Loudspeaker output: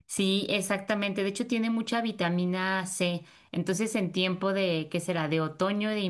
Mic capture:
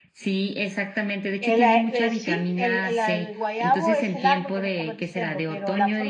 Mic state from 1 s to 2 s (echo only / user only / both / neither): both